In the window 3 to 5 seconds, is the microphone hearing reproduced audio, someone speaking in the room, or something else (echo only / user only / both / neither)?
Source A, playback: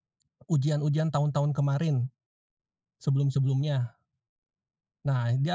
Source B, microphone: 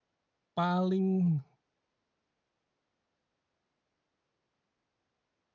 neither